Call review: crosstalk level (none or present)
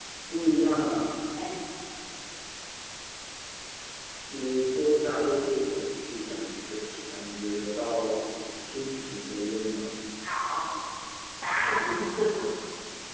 none